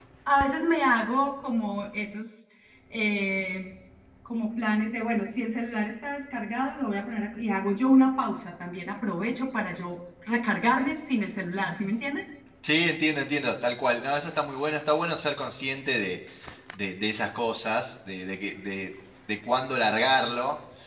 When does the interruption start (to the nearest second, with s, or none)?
none